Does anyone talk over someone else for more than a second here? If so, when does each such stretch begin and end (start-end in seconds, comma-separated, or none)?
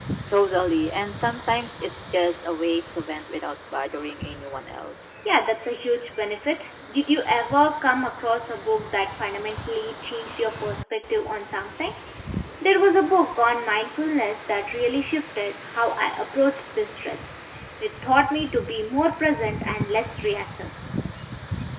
none